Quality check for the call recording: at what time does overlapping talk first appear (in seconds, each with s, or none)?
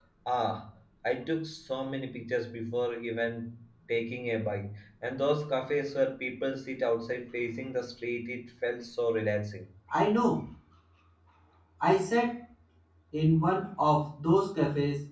none